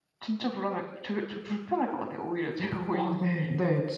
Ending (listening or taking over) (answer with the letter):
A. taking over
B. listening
A